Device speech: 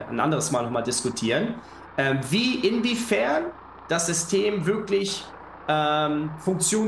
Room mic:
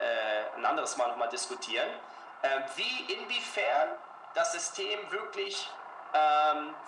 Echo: present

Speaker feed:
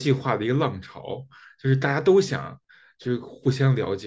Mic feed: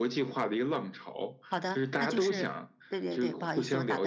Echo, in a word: present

